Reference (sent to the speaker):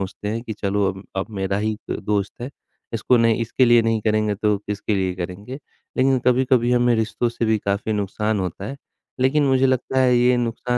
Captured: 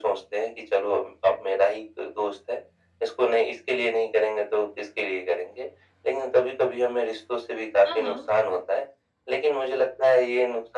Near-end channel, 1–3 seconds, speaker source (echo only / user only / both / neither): echo only